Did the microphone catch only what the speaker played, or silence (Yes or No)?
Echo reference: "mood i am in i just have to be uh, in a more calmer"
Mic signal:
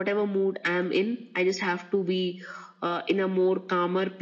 Yes